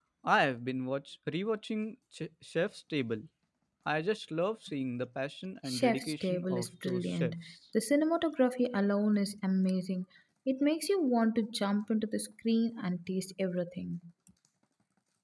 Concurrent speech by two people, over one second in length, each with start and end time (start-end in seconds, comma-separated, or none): 5.7-7.3